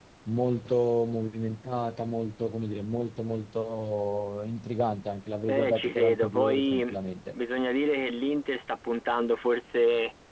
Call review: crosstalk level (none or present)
present